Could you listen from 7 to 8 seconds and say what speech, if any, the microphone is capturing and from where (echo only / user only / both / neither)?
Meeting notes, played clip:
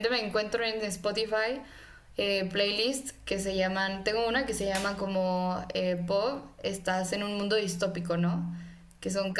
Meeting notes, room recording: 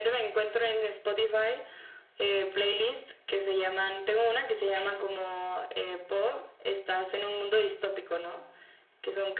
echo only